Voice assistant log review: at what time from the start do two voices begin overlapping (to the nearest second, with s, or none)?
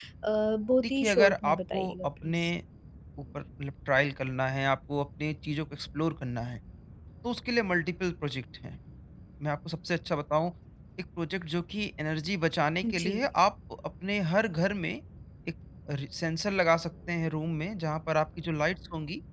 1 s